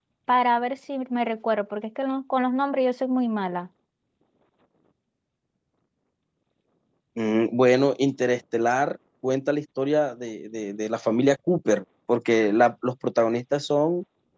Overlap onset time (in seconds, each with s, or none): none